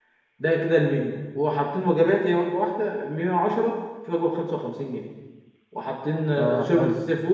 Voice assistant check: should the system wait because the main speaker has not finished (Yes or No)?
Yes